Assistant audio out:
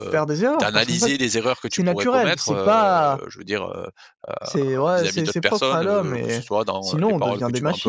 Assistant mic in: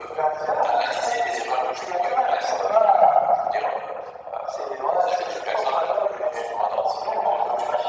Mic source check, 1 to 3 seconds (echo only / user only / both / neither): echo only